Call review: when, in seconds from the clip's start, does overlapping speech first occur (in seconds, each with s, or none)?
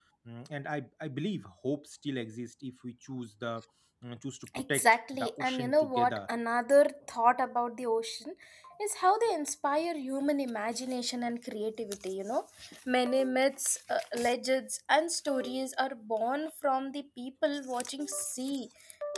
4.6 s